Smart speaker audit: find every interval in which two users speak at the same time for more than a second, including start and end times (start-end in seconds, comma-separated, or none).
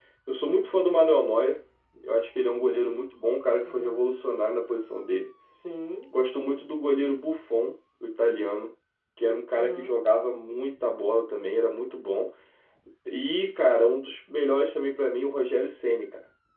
none